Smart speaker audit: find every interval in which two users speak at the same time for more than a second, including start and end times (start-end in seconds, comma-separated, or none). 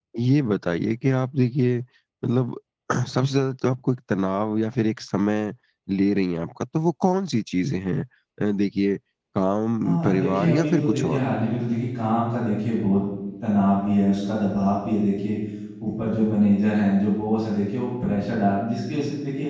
9.8-11.2